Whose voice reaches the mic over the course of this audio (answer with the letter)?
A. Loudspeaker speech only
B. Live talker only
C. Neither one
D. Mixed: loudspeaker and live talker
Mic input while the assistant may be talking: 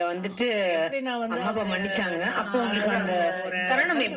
D